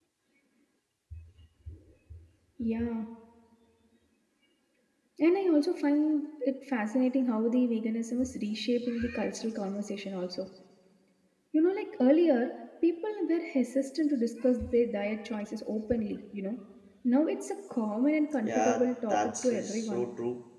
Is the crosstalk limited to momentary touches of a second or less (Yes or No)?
No